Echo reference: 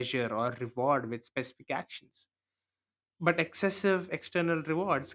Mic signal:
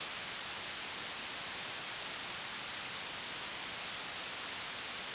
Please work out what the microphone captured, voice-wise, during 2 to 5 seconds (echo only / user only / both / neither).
neither